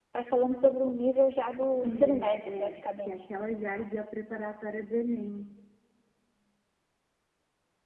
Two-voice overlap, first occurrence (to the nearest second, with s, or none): 2 s